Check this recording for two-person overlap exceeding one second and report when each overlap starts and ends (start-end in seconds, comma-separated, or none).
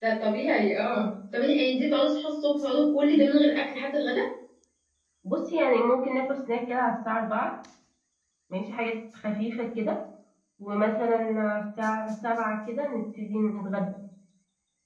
none